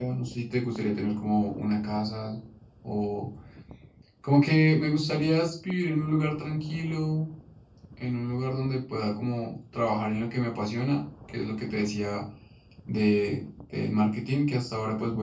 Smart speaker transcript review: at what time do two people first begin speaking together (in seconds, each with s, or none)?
none